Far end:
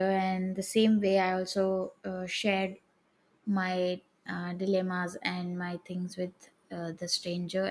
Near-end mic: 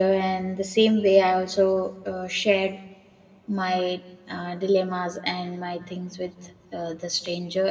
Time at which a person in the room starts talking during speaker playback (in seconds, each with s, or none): none